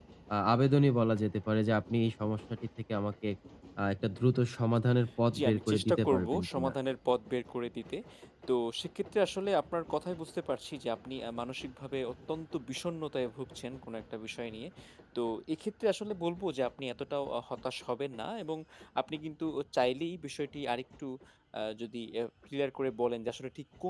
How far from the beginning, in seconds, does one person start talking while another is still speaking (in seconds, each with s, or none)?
5.3 s